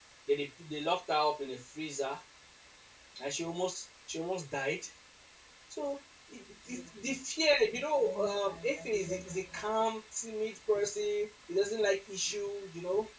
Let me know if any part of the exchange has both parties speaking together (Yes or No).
Yes